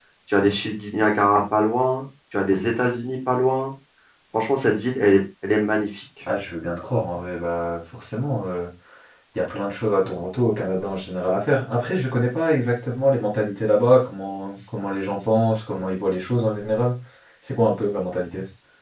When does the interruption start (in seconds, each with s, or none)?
none